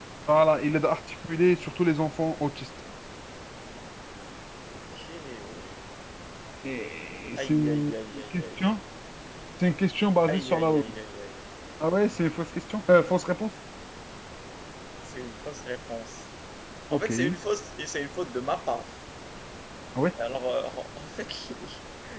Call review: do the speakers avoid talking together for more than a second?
No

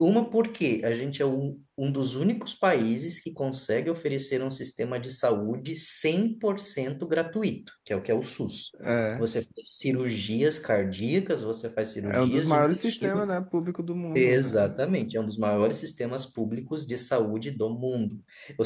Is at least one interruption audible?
Yes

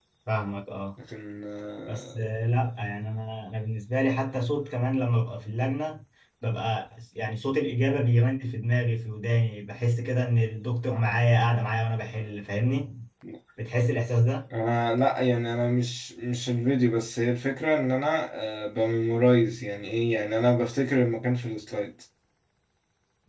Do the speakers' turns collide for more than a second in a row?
No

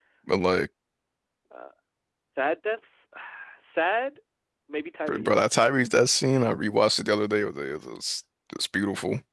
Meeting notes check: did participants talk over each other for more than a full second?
No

